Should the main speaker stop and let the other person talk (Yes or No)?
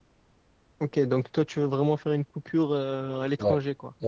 Yes